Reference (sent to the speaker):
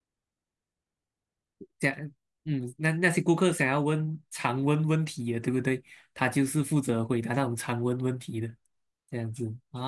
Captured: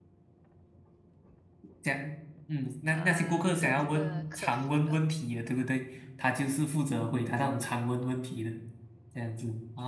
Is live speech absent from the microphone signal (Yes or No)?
No